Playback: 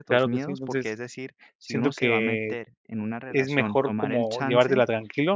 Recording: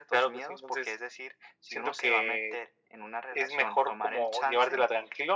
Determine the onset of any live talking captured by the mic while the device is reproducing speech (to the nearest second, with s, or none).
none